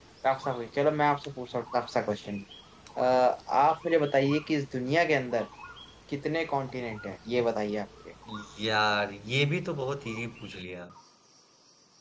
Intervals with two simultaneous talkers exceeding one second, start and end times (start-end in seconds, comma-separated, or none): none